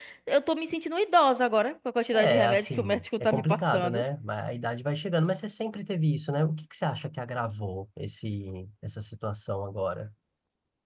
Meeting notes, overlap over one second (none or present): present